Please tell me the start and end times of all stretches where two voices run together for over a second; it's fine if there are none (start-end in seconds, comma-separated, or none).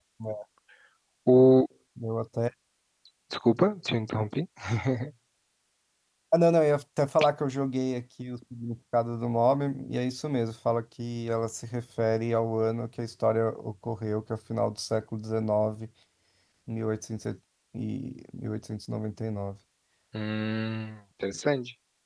none